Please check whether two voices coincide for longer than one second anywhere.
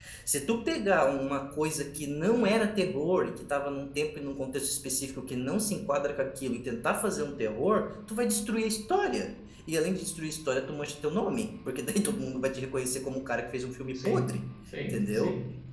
No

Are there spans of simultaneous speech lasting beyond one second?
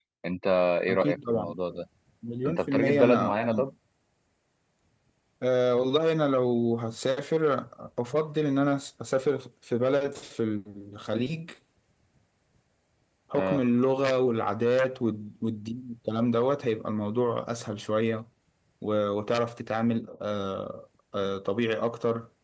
Yes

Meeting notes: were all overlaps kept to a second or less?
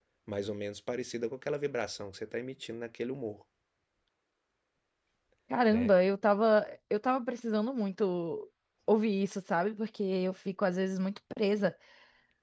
Yes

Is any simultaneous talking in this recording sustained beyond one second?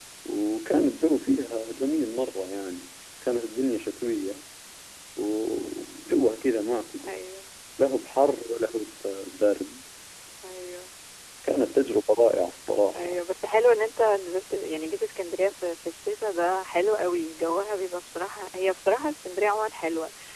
No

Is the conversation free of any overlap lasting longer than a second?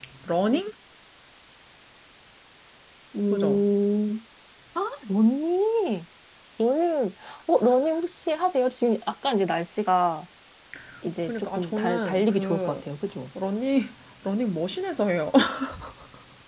No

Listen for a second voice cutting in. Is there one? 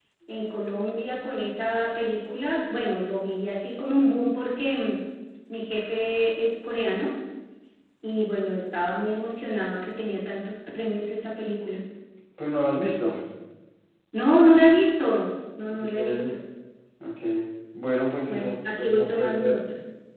Yes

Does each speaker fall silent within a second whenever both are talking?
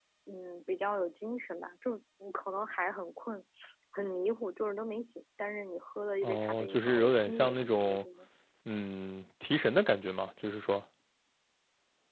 No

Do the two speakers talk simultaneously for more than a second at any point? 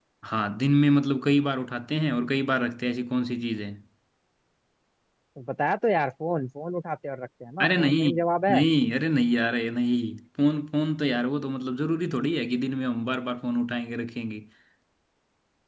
No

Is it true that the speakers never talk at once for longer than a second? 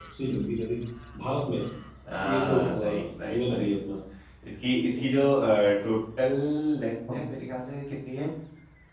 No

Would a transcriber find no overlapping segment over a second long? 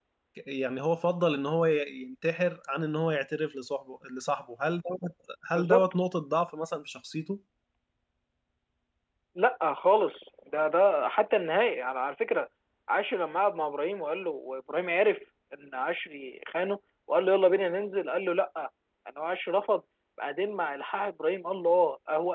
Yes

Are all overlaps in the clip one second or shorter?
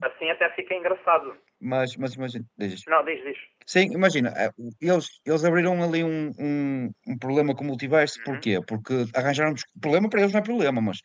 Yes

